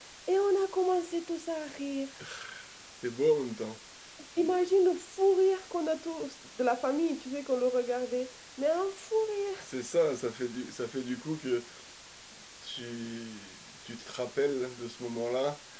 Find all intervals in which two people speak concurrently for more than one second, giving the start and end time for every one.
none

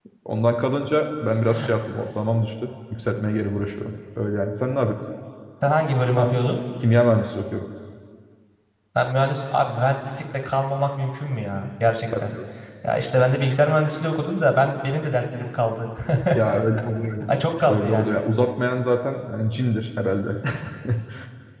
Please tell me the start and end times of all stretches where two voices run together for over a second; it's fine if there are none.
none

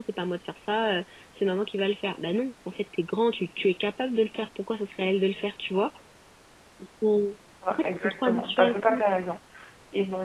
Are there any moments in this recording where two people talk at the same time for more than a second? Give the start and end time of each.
7.7-9.0

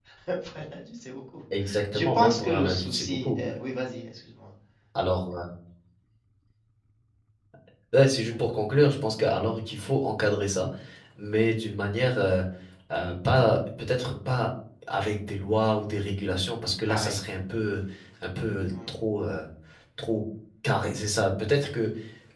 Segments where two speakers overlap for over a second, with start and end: 1.9-3.4

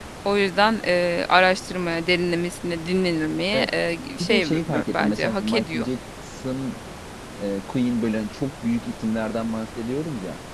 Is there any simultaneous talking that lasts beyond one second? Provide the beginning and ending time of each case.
4.2-5.8

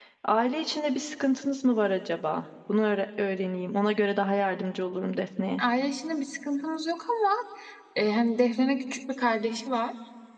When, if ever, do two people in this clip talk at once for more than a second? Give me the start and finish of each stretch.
none

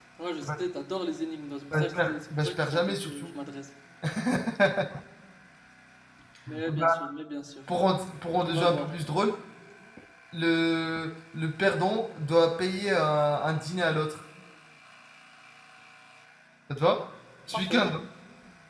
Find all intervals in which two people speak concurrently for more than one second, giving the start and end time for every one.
1.7-3.4

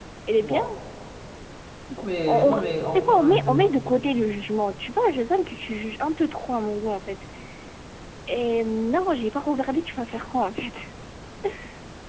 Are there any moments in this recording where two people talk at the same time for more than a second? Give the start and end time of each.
2.2-3.7

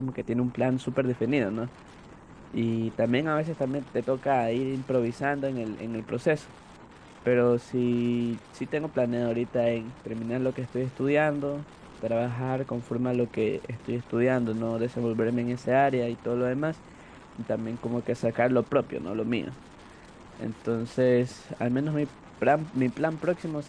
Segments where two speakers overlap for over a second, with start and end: none

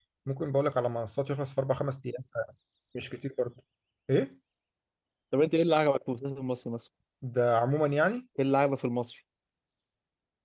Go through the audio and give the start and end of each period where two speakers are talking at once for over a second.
none

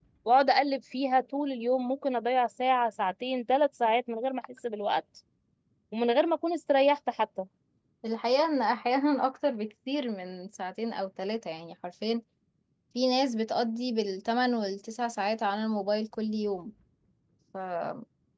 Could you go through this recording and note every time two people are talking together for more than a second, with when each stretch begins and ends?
none

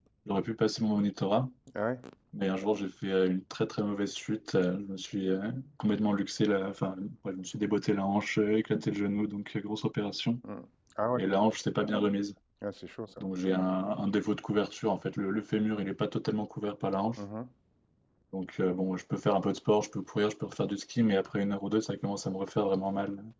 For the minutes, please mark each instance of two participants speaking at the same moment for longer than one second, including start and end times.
none

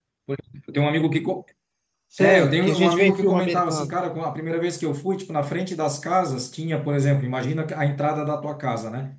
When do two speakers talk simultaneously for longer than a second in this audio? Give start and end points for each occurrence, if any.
2.2-3.9

